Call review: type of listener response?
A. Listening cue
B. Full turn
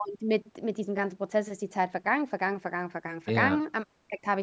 A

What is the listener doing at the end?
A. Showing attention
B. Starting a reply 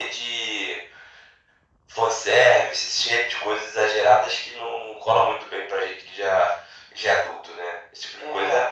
B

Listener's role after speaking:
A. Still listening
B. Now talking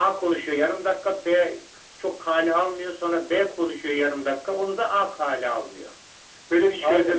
B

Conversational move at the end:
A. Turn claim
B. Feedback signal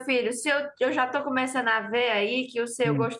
B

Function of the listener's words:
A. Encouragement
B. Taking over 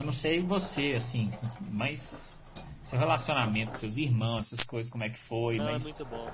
B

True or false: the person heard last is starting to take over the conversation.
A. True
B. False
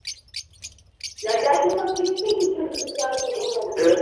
A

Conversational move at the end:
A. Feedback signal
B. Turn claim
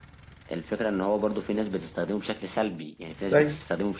A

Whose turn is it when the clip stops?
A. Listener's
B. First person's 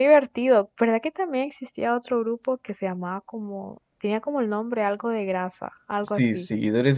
A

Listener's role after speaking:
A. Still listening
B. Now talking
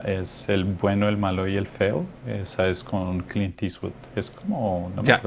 B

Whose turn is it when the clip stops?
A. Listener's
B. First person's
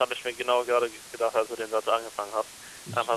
B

